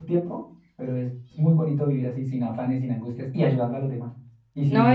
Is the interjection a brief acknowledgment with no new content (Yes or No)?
No